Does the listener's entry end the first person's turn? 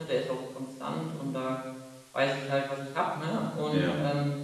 No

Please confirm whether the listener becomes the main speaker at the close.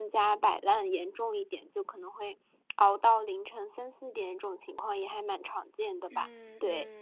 Yes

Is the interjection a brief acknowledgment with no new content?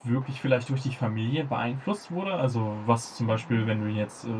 Yes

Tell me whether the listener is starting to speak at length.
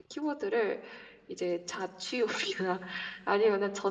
No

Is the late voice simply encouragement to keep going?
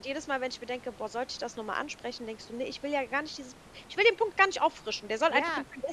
No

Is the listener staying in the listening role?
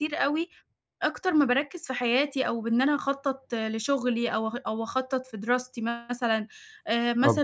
Yes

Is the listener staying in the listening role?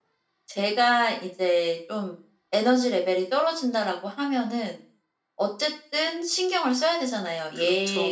Yes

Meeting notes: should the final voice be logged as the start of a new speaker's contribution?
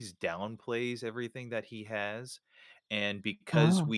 No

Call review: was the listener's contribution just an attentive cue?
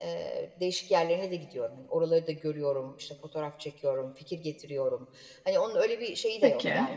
Yes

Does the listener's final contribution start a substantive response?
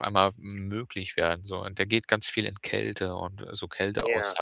No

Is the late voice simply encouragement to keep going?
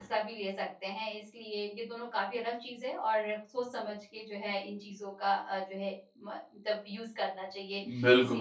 No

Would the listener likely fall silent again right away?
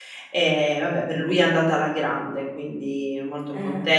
Yes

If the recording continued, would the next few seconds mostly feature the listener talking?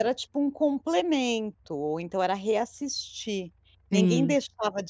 No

